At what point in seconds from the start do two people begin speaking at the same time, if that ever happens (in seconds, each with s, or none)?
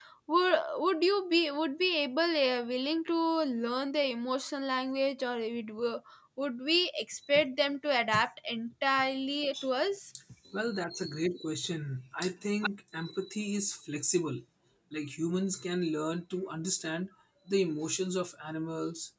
none